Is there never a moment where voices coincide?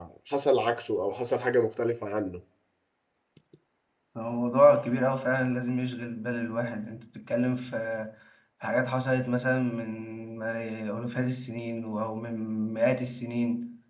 Yes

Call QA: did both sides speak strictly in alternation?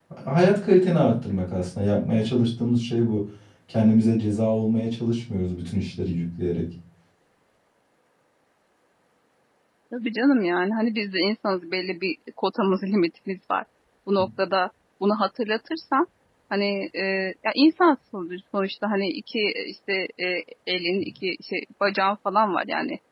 Yes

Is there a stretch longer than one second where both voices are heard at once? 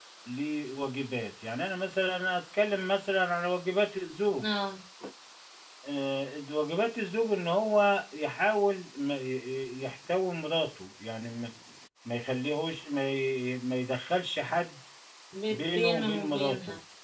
Yes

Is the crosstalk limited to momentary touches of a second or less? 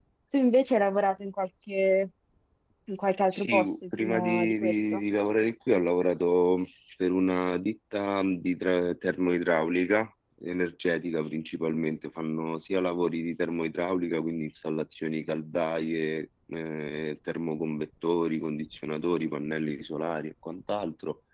No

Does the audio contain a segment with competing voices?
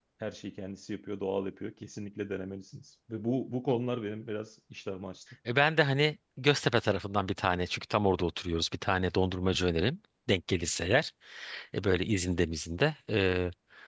No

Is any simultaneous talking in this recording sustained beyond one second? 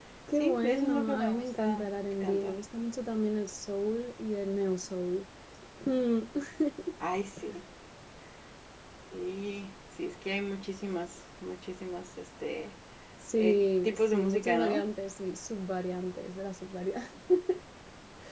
Yes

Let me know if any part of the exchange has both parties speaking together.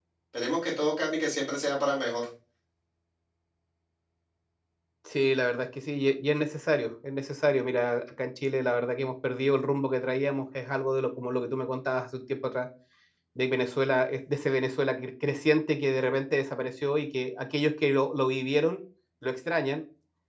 No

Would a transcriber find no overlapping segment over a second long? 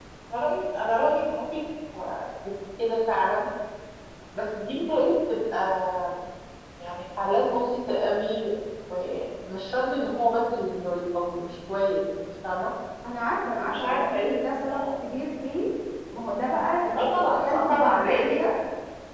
No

